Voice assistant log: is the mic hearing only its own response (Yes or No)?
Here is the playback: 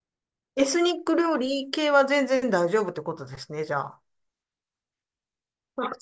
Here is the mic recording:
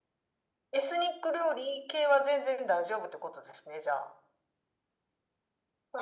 Yes